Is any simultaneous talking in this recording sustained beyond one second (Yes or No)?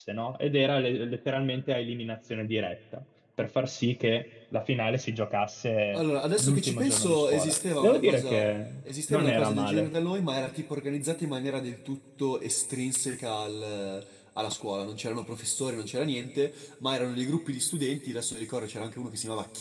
Yes